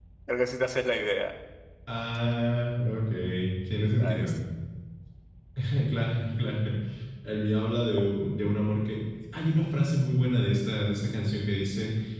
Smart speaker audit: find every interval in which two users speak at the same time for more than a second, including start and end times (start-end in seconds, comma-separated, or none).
none